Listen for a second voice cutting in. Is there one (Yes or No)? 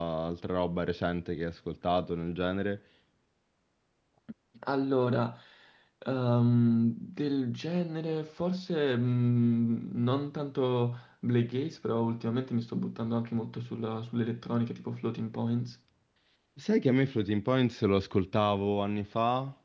No